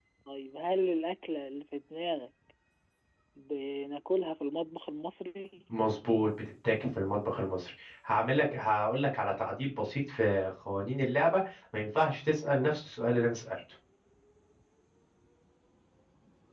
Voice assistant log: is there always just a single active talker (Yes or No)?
Yes